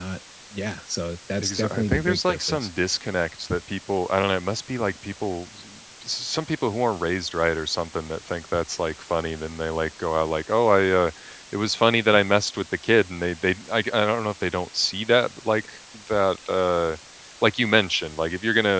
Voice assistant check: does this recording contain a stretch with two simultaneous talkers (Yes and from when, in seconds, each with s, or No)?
Yes, from 1.4 s